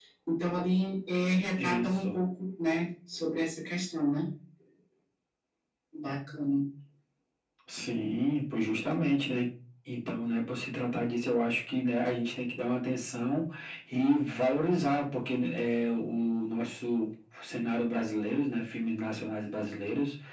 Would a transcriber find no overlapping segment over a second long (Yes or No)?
Yes